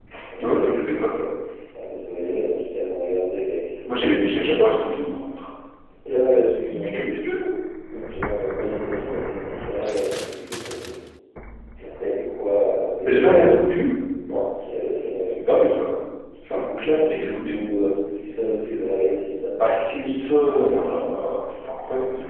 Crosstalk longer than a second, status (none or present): present